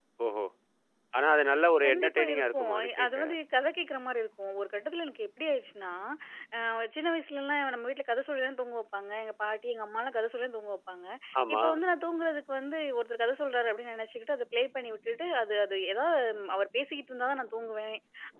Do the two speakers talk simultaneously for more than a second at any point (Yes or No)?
Yes